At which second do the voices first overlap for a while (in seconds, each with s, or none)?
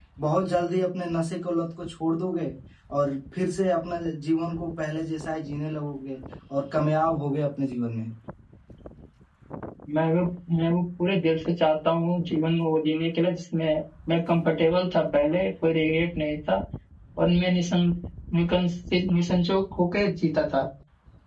none